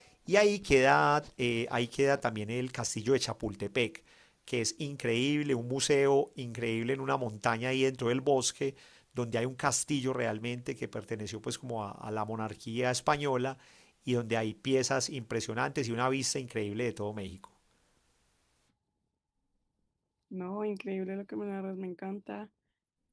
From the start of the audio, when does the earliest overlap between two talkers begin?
none

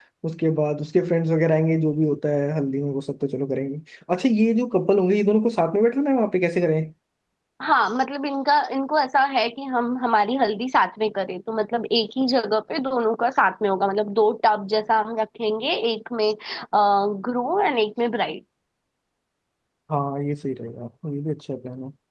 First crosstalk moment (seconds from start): none

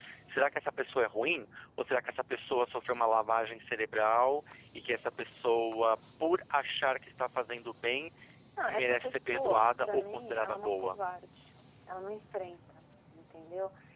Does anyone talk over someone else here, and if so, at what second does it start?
8.7 s

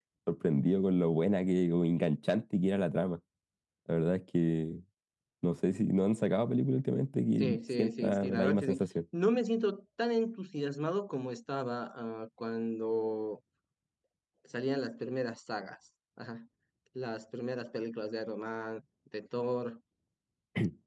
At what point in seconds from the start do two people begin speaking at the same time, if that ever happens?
7.4 s

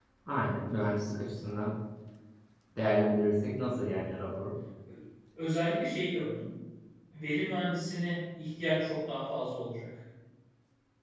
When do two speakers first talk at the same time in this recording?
none

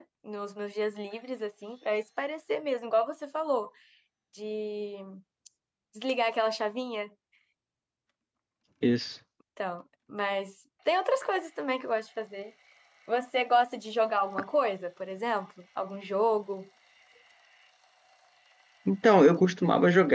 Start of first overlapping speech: none

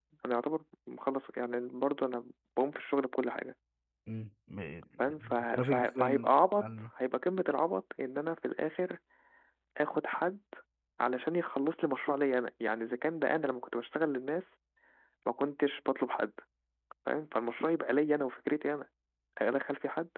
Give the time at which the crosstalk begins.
5.0 s

